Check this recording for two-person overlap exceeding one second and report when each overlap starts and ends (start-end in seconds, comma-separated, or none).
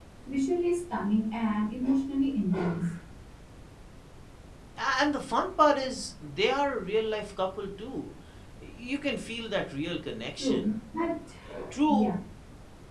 none